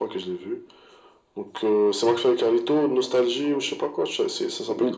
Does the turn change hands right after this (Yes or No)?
Yes